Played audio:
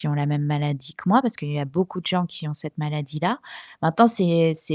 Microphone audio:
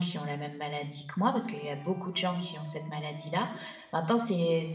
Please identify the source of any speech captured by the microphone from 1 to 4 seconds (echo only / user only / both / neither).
echo only